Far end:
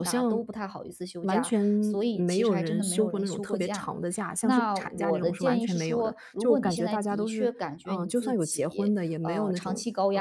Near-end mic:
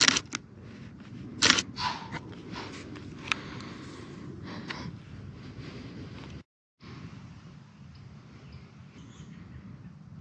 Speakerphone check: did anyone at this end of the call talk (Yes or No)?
No